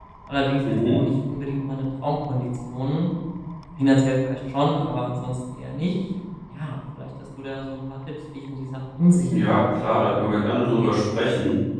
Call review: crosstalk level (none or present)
present